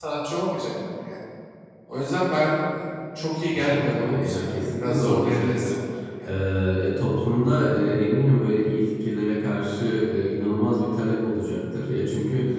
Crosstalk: present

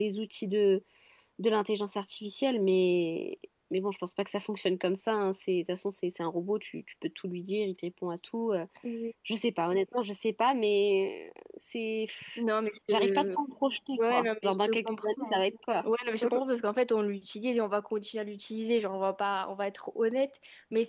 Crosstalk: present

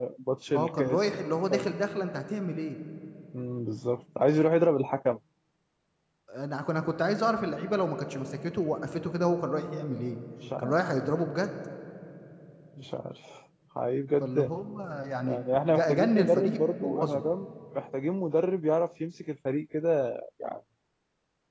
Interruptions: present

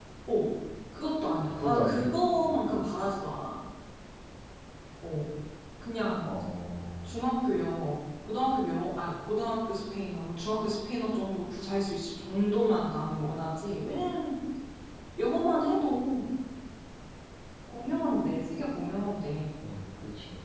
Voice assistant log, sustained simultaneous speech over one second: present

